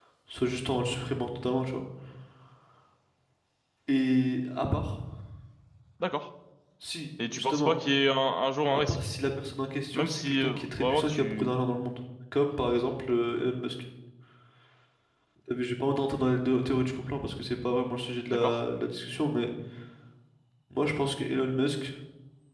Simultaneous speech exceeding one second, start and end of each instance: 9.9-11.6

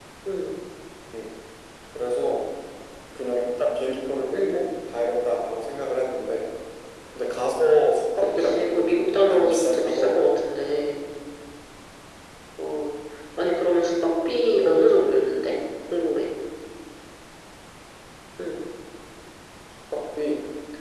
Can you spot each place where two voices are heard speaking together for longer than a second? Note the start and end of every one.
8.2-10.1

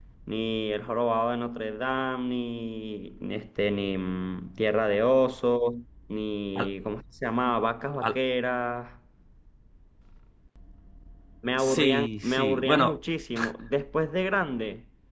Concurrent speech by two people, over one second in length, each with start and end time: 11.6-13.0

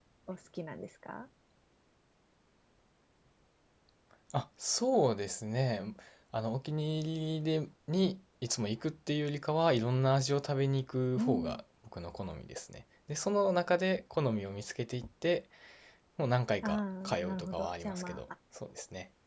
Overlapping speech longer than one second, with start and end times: 16.6-18.2

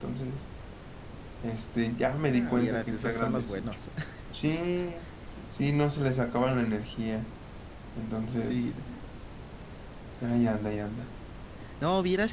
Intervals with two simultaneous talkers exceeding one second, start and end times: 2.3-3.8

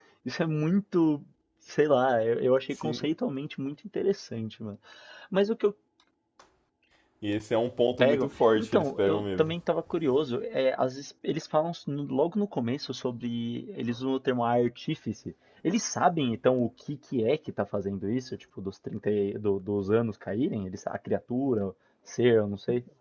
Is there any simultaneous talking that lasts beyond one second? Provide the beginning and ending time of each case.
8.0-9.5

